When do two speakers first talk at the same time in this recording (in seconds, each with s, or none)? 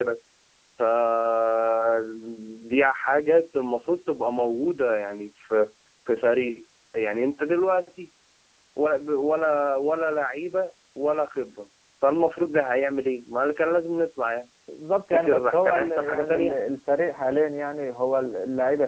15.1 s